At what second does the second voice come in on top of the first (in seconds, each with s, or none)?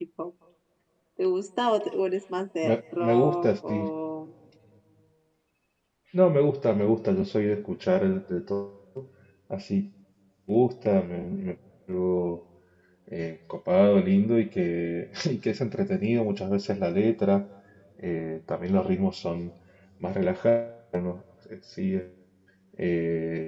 2.6 s